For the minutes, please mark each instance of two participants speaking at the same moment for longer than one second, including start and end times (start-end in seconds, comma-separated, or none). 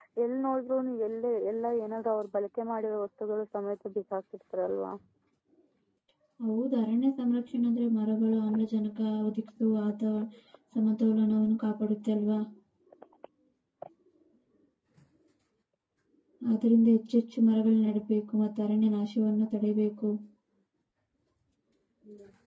none